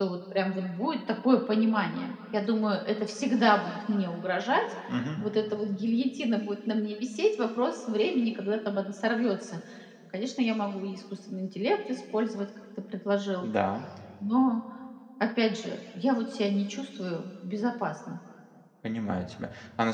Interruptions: none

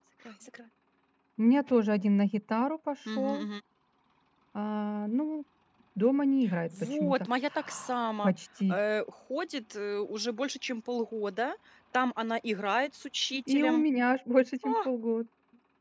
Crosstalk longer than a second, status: none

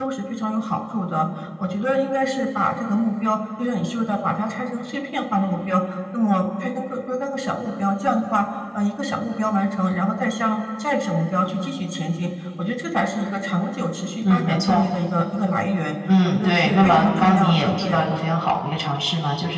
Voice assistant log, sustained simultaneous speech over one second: present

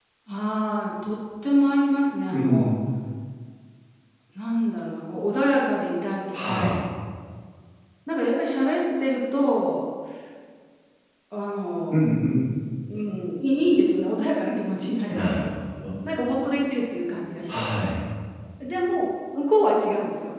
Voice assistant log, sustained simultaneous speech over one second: none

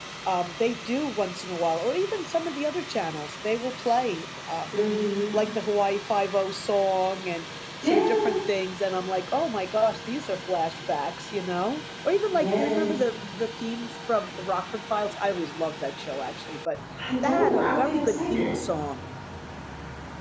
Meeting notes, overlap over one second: present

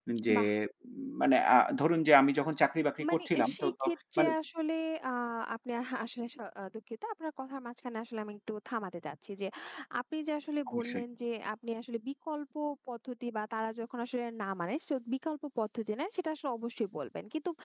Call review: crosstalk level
present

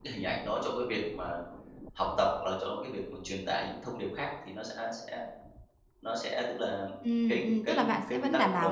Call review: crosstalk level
present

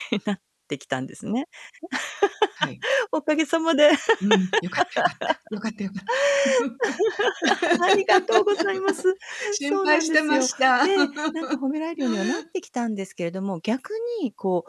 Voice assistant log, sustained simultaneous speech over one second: present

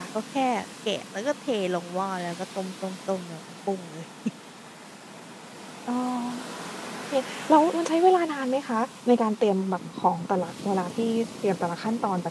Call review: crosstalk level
none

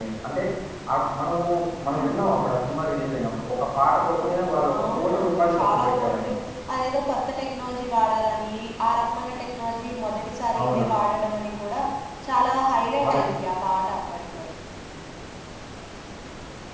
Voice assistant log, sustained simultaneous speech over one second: present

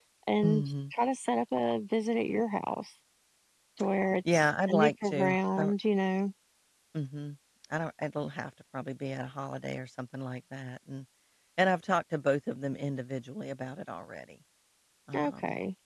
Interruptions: present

